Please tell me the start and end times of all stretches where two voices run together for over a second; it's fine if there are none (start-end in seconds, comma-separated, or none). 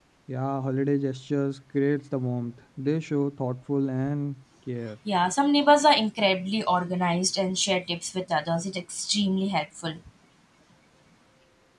none